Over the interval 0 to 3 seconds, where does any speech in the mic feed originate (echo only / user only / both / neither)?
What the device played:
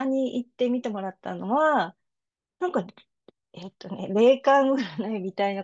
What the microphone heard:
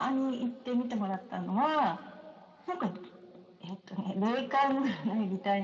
echo only